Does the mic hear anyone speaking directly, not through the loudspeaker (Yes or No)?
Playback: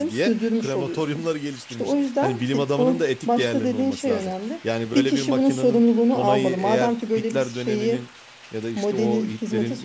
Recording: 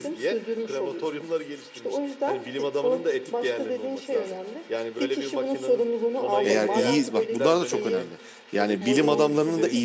Yes